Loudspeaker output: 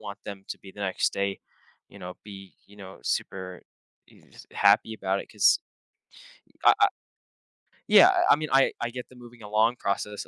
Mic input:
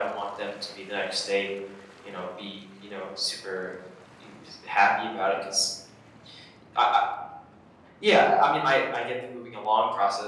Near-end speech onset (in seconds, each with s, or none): none